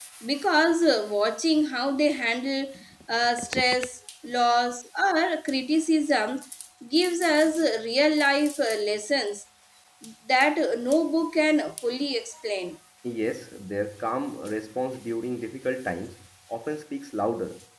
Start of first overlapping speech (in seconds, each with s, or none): none